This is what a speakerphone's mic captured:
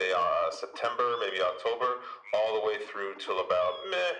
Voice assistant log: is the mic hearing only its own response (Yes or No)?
Yes